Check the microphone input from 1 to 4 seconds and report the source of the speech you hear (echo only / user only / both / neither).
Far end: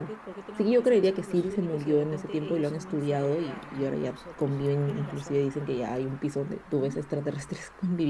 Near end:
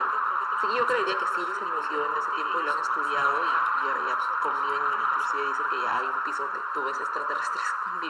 echo only